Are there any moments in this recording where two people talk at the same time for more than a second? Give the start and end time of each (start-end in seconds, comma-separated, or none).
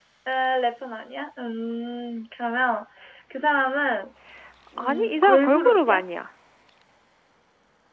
4.8-6.0